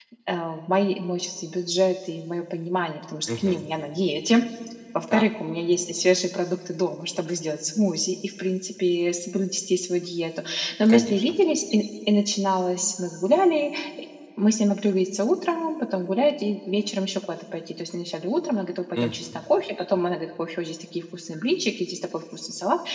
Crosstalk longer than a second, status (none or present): none